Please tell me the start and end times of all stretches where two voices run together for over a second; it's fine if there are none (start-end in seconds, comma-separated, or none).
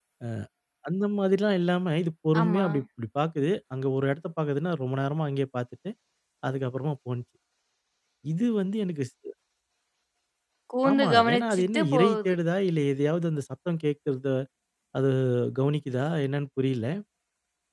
10.9-12.3